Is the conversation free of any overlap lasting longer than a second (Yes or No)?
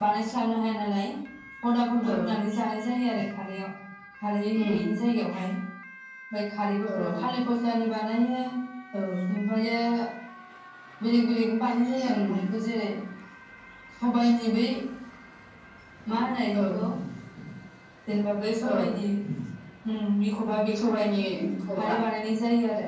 Yes